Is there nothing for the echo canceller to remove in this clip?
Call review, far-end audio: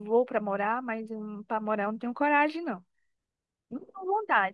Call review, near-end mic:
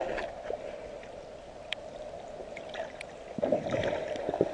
Yes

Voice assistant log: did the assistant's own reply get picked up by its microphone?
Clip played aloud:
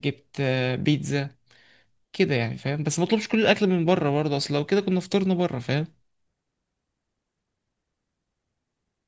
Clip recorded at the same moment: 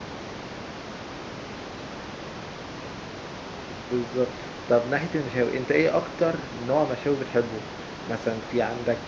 No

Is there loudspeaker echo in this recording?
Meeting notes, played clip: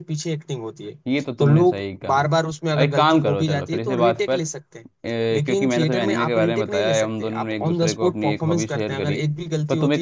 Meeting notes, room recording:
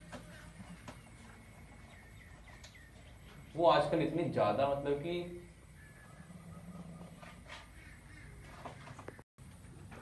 No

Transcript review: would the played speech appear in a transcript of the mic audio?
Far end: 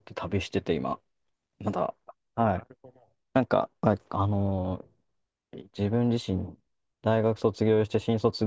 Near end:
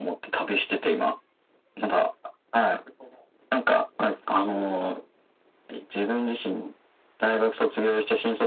Yes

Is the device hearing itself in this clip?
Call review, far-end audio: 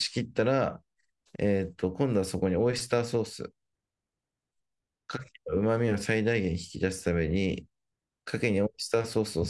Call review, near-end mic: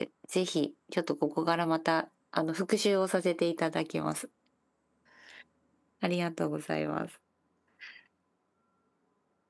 No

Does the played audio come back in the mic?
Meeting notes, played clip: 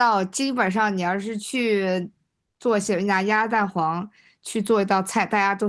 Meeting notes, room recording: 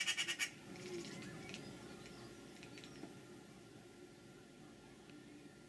No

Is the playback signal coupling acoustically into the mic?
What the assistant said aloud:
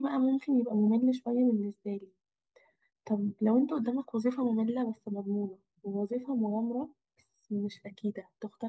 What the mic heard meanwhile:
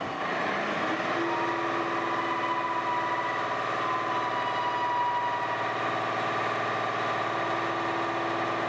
No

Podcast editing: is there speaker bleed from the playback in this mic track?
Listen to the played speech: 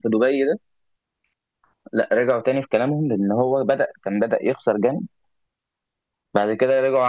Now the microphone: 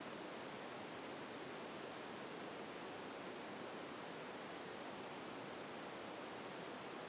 No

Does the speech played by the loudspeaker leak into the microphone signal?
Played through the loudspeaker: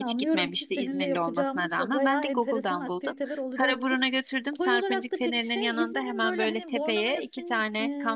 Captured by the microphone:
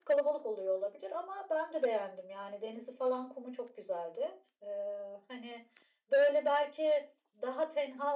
No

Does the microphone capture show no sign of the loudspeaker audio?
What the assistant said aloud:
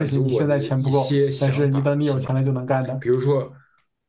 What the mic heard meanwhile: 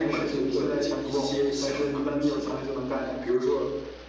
No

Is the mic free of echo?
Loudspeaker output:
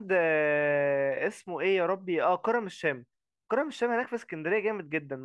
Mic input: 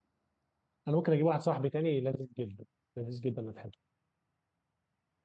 Yes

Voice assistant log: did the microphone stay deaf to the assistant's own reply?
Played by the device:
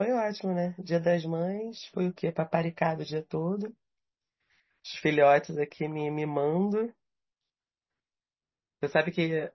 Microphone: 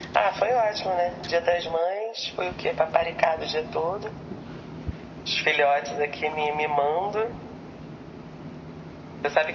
No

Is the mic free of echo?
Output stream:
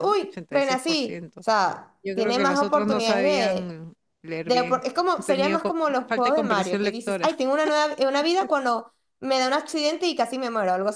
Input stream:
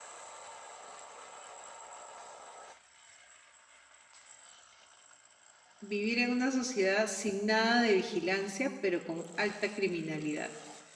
Yes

